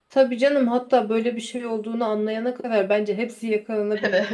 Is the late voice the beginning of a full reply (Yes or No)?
Yes